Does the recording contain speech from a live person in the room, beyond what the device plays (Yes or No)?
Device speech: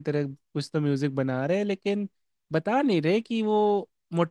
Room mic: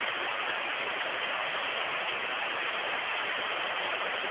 No